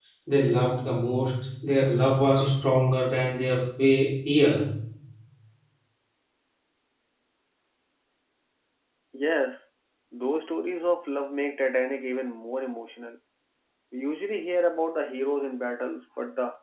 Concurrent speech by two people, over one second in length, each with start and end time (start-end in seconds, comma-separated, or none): none